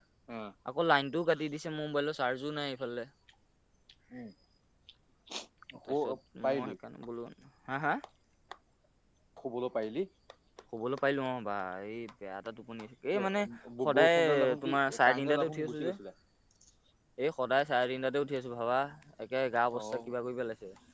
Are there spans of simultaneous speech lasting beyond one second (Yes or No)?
Yes